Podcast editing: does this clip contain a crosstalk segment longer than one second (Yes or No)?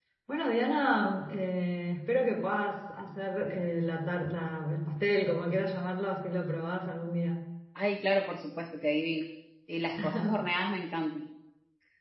No